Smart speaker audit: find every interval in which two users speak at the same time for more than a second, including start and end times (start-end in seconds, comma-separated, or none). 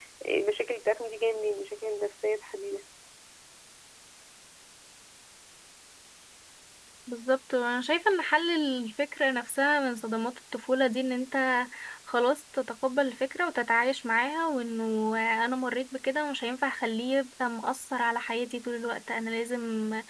none